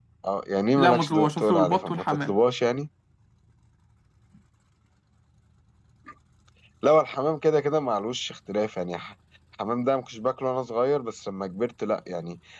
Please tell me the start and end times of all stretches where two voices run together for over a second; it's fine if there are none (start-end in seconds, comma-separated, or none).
0.8-2.3